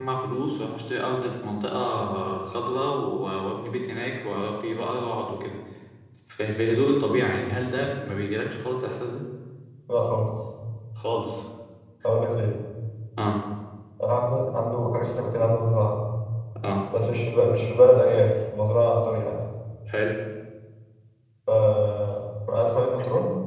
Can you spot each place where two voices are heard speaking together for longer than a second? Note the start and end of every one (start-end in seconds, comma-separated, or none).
none